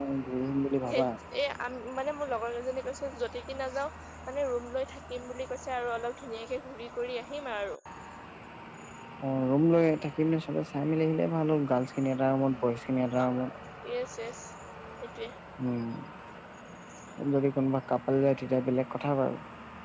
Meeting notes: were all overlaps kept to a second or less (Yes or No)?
Yes